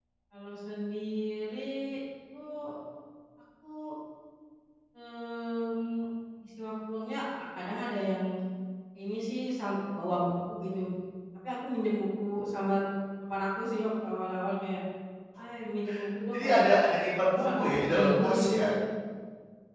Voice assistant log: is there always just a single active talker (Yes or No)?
No